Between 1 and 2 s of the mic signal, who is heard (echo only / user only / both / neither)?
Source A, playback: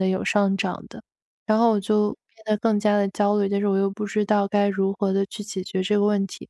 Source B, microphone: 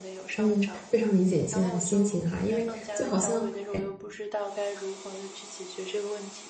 both